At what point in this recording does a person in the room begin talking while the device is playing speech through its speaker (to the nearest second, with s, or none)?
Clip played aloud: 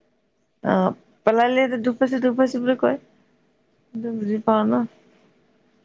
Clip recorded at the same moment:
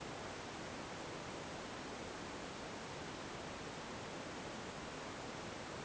none